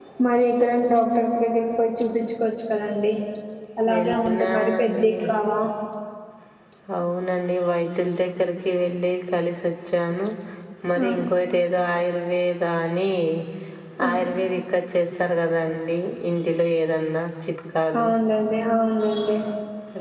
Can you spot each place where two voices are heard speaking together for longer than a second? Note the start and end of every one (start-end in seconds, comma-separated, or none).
3.9-5.2